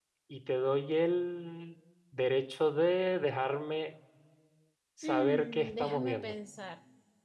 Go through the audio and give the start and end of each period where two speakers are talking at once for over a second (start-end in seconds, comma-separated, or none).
5.0-6.3